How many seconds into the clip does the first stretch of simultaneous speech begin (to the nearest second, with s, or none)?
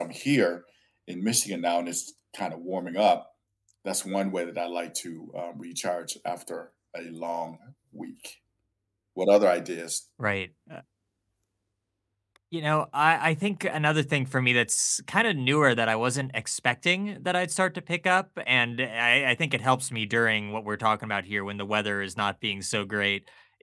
none